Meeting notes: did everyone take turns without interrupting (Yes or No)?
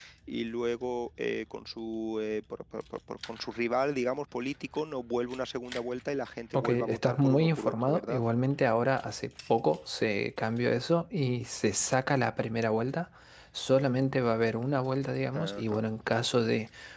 No